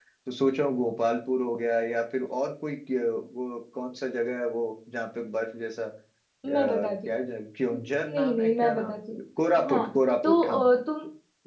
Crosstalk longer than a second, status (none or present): present